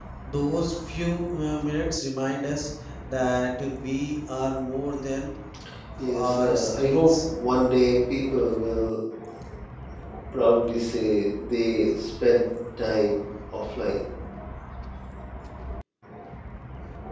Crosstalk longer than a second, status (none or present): present